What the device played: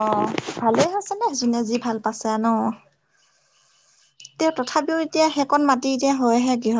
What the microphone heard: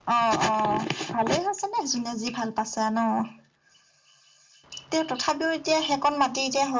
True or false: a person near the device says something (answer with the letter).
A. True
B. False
B